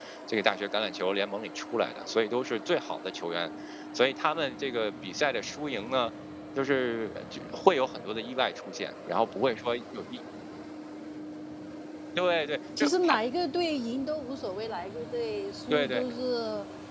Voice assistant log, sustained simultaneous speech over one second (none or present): none